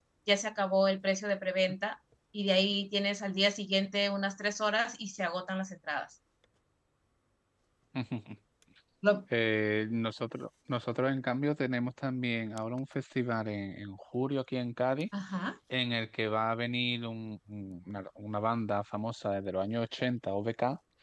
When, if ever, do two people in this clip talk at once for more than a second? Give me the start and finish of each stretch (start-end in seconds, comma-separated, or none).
none